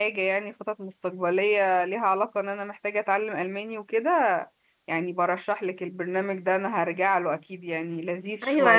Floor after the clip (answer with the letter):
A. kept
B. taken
B